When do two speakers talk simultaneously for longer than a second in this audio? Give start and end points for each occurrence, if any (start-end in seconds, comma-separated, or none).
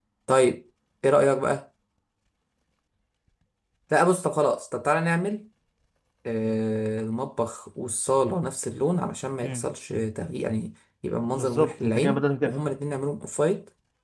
11.3-12.5